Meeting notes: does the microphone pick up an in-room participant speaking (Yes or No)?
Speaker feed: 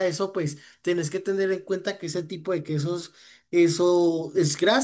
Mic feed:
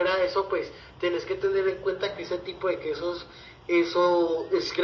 No